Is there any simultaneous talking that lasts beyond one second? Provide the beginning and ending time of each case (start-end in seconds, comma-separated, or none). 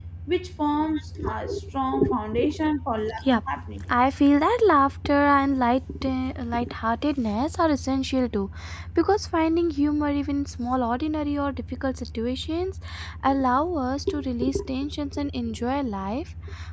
none